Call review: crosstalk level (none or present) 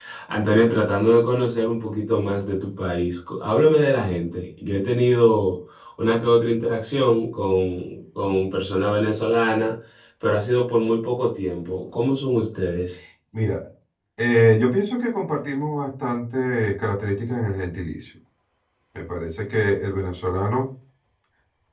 none